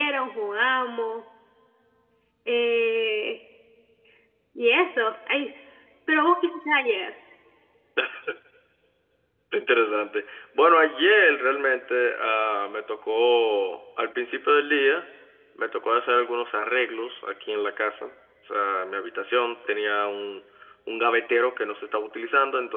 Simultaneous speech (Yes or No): No